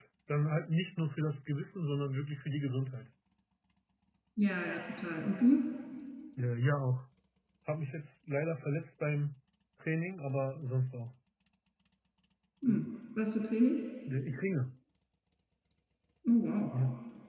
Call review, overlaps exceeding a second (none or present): none